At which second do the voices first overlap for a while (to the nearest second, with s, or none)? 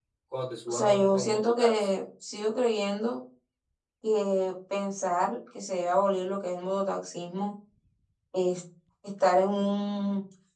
1 s